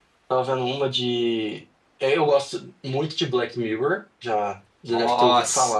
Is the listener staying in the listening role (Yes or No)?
No